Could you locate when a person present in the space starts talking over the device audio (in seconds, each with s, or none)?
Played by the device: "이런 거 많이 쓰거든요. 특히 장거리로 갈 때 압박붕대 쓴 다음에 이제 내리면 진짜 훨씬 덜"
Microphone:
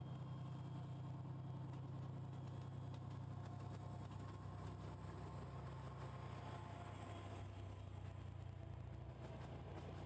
none